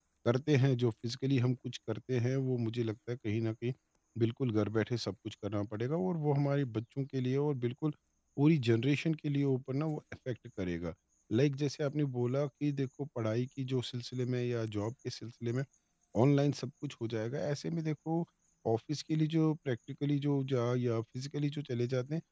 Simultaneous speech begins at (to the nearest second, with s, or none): none